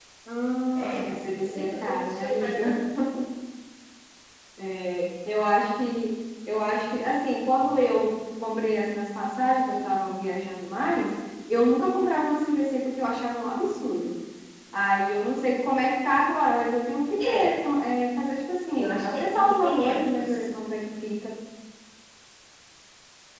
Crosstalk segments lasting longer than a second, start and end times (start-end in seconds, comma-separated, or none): 0.8-2.8, 18.8-20.5